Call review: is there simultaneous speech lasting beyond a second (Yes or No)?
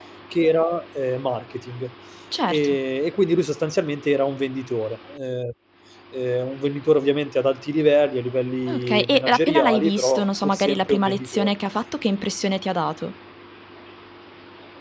Yes